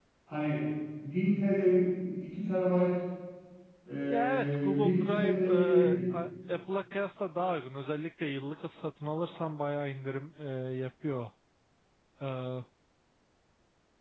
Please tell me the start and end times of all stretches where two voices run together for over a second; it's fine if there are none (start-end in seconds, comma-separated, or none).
4.1-6.0